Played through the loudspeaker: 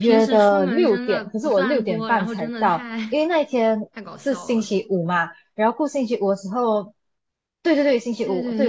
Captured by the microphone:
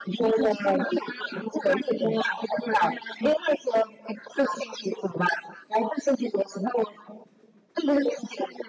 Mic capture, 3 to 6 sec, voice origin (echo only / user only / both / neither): echo only